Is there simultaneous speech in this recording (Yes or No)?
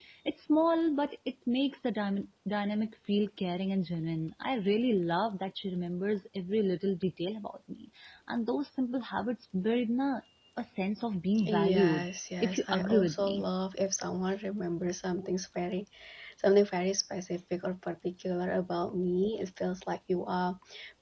Yes